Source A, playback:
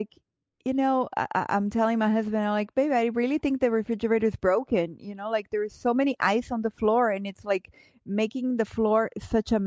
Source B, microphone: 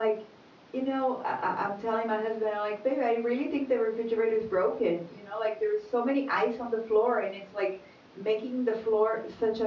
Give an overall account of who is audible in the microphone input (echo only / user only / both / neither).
echo only